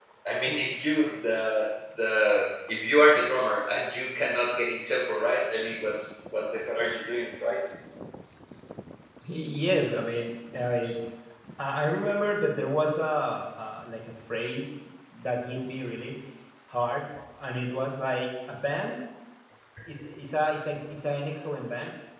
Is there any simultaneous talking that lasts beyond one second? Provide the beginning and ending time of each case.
none

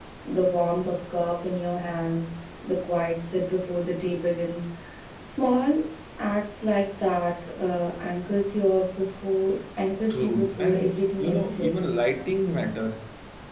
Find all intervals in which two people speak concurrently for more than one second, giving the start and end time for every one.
10.1-11.7

